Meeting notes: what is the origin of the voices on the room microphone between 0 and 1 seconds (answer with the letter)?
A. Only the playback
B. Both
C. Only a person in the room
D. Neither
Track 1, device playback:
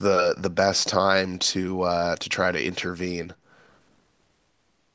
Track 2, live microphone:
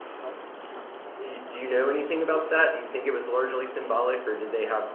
D